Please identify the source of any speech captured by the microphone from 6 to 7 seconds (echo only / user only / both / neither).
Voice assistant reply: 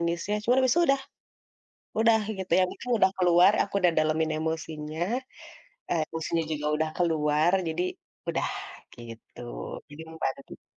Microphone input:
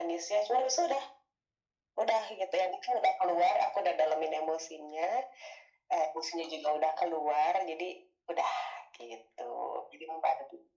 echo only